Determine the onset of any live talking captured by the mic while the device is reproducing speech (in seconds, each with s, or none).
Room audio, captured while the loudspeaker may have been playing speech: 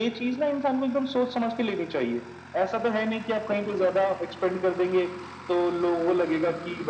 none